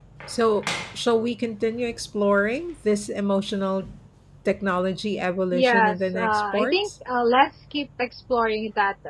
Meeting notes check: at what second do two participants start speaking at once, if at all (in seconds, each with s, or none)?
5.5 s